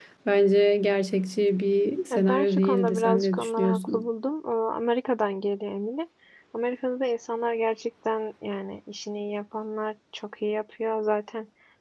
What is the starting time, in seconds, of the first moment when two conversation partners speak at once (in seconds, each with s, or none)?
2.1 s